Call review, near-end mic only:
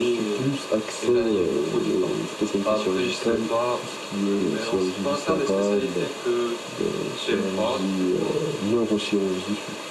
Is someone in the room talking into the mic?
No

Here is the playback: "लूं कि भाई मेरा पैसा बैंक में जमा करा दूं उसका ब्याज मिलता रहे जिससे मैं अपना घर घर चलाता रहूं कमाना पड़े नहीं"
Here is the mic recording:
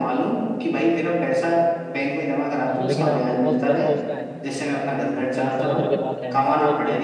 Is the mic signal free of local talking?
No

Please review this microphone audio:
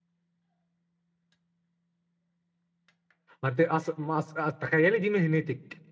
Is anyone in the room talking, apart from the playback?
Yes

